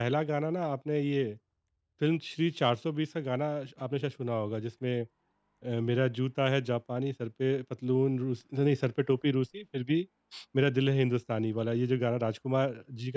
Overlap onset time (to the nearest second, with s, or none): none